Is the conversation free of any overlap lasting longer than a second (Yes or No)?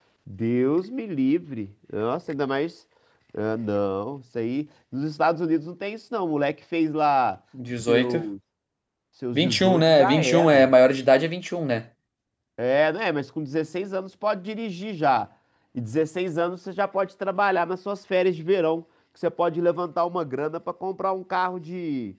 No